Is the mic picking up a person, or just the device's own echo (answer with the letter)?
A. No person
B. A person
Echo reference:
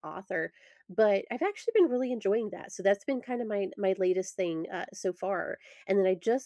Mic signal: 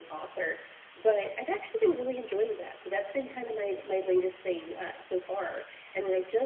A